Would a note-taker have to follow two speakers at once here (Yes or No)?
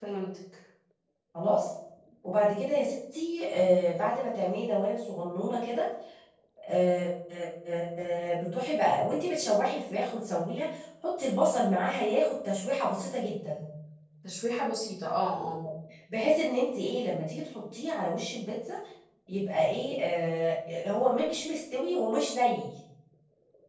No